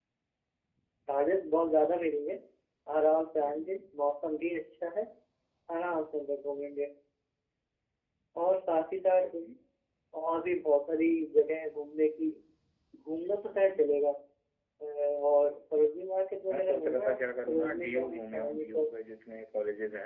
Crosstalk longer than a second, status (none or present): present